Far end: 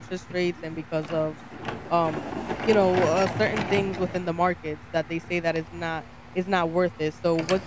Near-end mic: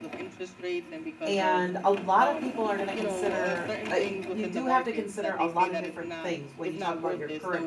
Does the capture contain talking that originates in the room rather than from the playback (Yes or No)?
Yes